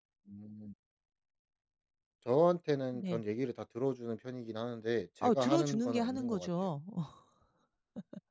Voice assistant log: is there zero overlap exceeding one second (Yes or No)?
No